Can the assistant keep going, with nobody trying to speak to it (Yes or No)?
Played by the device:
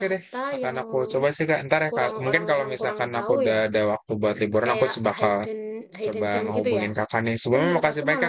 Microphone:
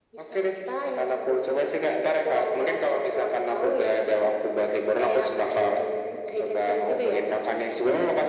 Yes